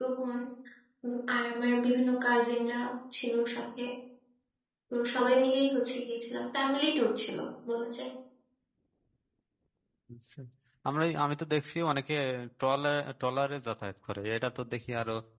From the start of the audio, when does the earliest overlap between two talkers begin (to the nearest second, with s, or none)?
none